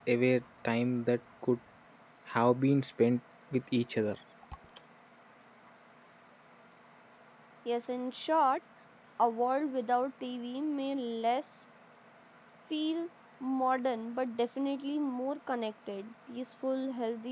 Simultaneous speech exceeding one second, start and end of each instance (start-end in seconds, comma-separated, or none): none